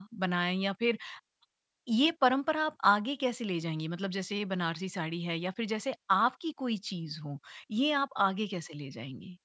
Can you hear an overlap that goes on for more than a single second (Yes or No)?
No